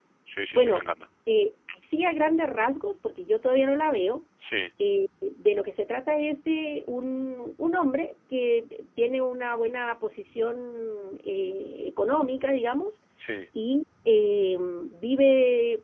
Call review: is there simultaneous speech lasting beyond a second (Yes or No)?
No